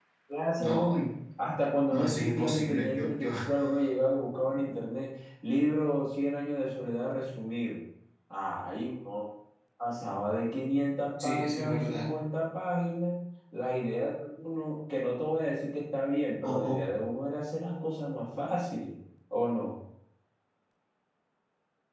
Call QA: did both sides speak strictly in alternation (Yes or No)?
No